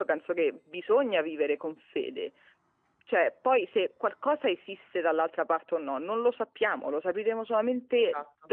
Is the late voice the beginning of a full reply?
No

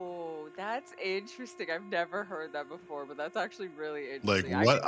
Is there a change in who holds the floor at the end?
Yes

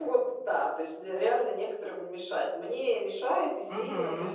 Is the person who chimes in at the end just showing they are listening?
Yes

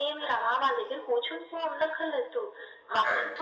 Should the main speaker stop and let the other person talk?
No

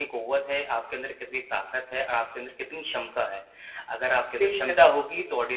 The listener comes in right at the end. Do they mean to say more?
No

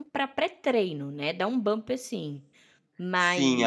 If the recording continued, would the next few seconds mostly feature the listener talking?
Yes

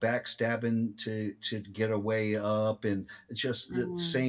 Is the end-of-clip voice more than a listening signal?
No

